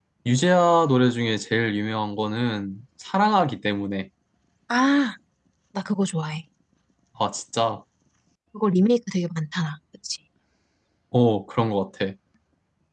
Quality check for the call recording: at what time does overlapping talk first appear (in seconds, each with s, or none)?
none